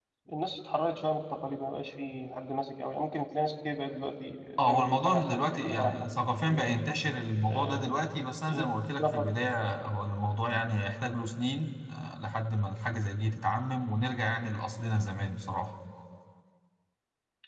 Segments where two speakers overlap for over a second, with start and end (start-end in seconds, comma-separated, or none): 4.7-5.9